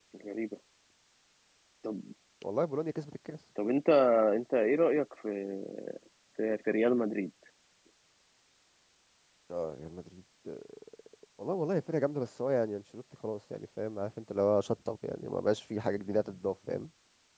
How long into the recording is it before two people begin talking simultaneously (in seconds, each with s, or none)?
none